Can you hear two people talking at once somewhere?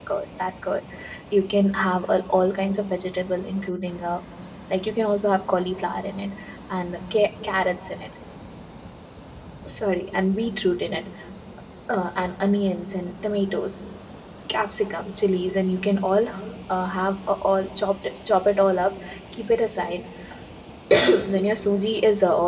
No

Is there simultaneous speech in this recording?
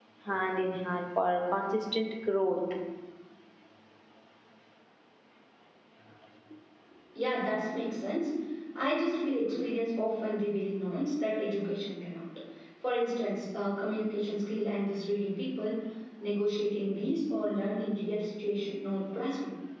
No

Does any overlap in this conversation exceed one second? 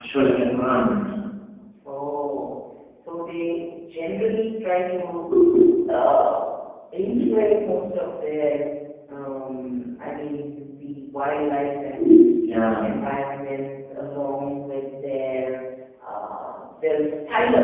No

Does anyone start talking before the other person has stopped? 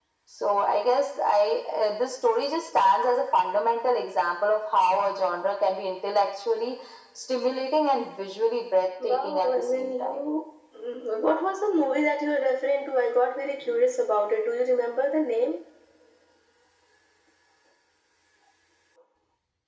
Yes, from 9.0 s

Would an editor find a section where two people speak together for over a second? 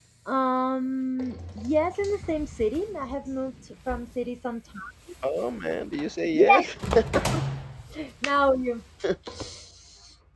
No

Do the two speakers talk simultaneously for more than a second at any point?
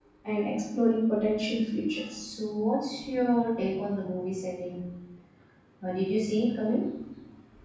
No

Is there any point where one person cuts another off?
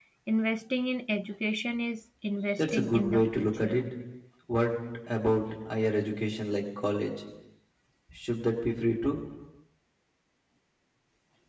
Yes, from 2.6 s

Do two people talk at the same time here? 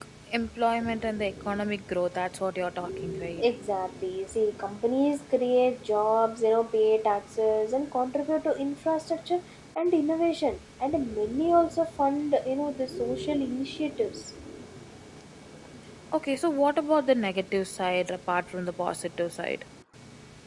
No

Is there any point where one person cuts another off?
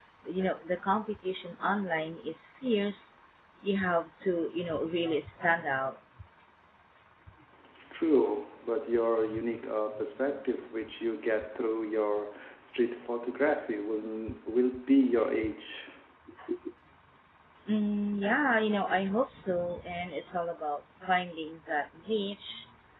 No

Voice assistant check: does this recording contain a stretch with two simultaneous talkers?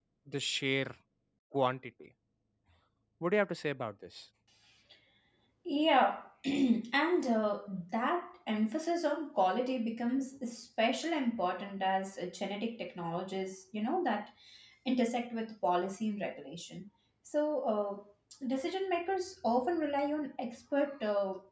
No

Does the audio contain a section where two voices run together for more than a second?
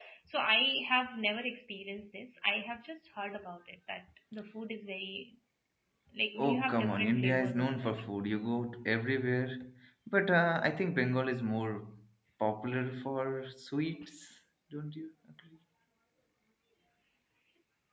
Yes, from 6.4 s

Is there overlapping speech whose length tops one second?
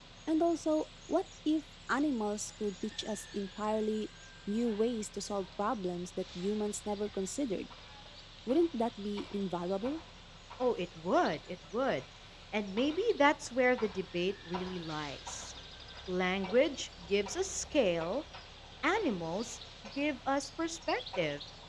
No

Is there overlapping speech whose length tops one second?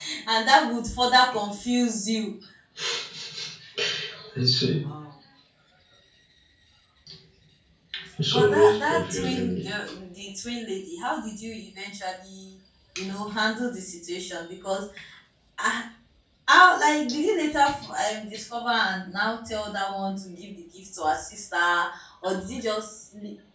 Yes, from 8.3 s

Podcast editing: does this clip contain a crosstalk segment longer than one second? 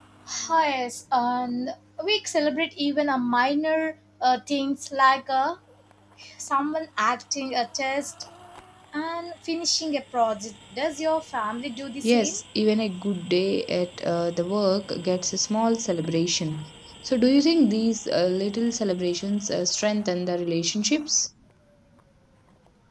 No

